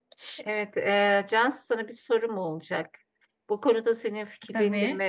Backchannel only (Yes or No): Yes